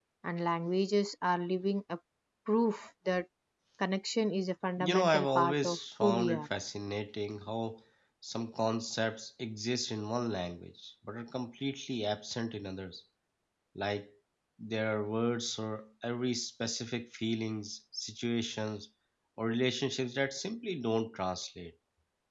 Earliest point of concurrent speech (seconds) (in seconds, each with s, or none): 4.8 s